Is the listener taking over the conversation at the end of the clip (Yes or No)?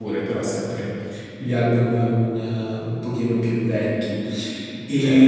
No